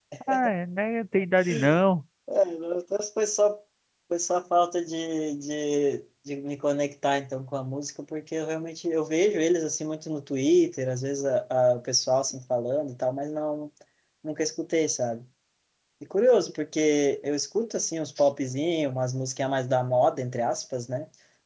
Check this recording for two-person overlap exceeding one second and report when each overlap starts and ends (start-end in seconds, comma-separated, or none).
none